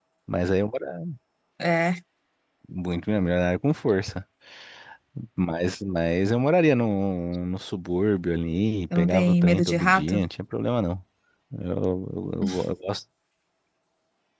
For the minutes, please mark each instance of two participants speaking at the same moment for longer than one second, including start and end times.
8.9-10.2

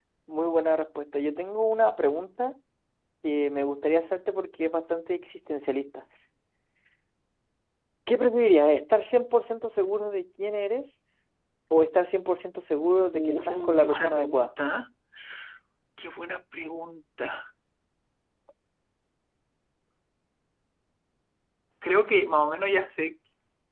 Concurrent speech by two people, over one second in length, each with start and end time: 13.1-14.5

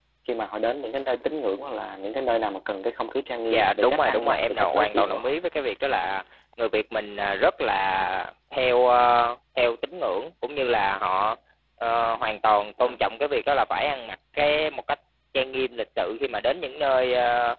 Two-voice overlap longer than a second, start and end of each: 3.5-5.3

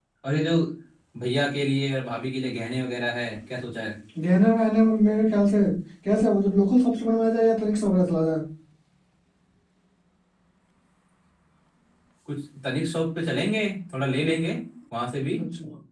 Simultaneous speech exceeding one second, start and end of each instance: none

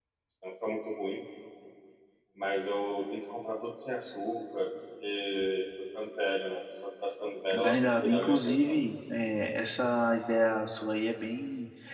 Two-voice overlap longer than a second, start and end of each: 7.5-8.8

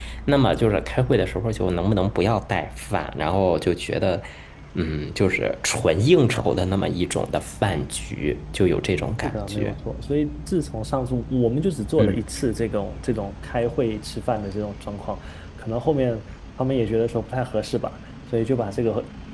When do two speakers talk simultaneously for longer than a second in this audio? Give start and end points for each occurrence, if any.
none

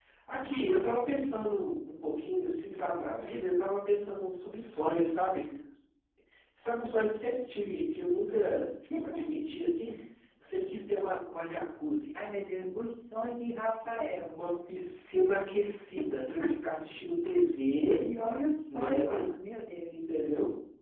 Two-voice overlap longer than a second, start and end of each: none

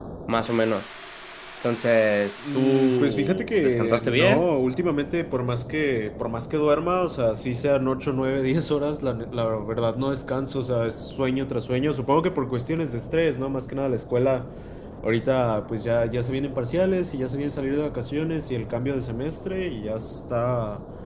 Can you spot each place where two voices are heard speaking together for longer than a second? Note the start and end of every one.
2.5-4.5

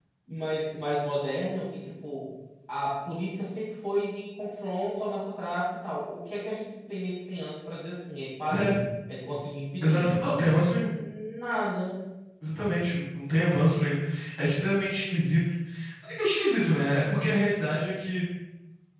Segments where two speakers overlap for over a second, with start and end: none

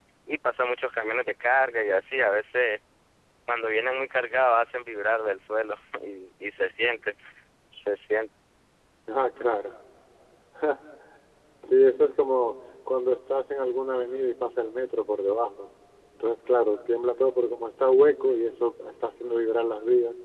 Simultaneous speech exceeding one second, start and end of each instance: none

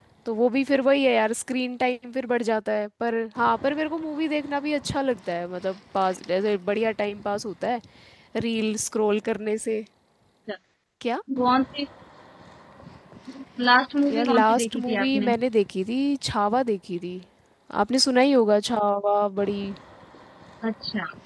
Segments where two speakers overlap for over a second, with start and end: 14.1-15.3

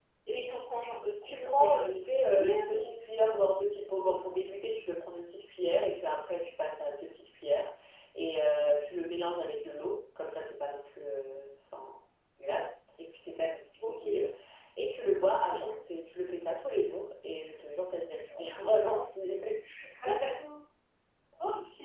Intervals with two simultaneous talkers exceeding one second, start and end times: 1.2-3.1

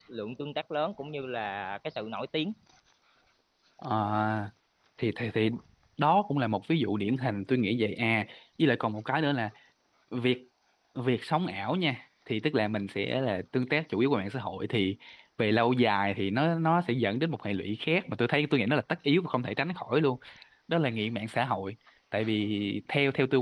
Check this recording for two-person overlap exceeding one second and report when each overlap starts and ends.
none

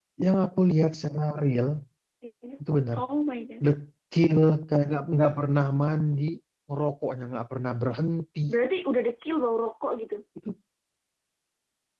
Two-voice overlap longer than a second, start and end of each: none

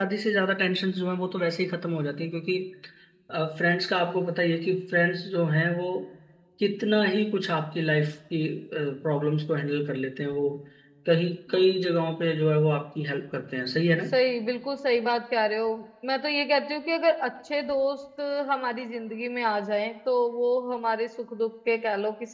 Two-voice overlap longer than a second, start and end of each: none

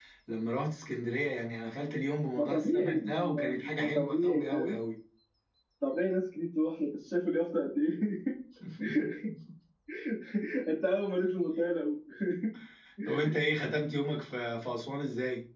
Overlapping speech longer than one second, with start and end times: 2.4-4.8

